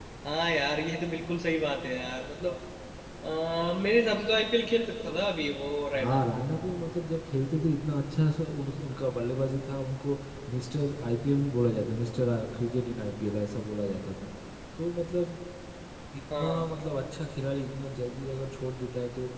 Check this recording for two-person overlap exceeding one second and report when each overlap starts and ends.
none

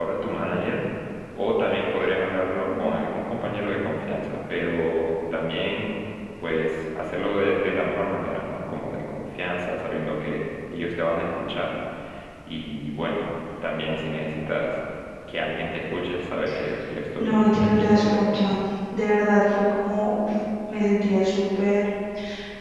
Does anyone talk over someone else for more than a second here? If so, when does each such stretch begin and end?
17.2-18.6

